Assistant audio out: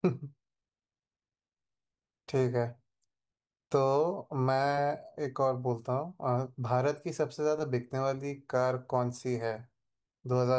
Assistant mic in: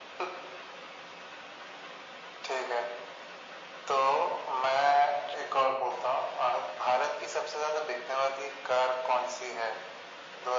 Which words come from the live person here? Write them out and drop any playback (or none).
none